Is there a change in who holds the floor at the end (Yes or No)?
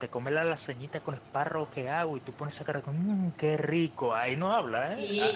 Yes